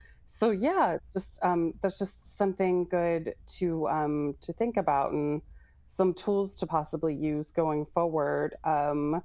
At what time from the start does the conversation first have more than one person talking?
none

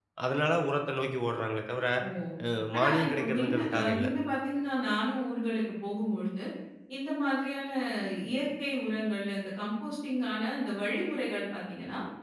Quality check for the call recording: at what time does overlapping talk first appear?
2.7 s

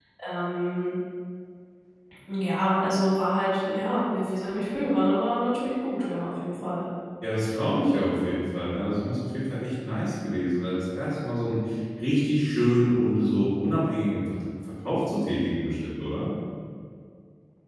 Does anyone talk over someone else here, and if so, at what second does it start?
none

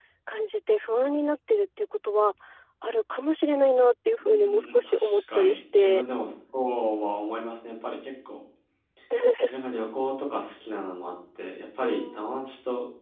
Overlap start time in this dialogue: 4.2 s

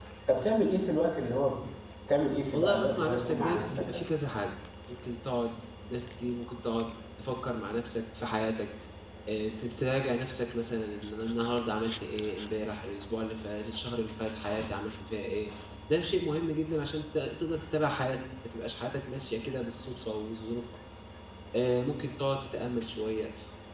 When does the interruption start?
2.5 s

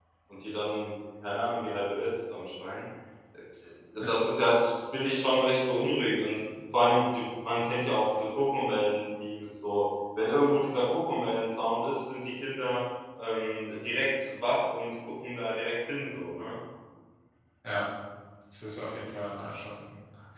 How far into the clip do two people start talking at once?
none

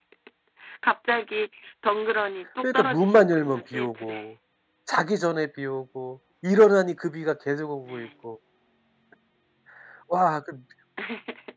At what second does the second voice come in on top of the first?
2.6 s

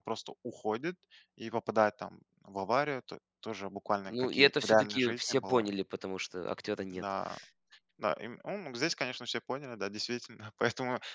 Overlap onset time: 4.1 s

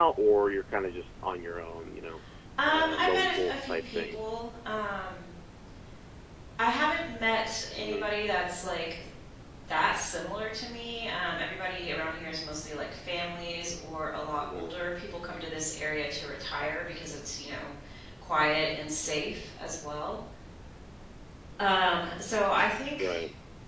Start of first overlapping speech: 2.7 s

